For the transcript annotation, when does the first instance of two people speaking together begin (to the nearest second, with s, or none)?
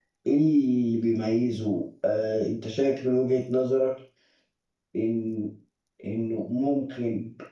none